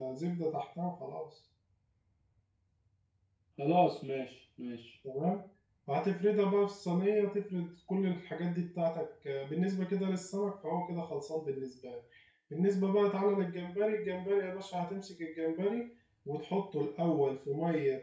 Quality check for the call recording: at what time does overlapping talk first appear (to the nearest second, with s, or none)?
none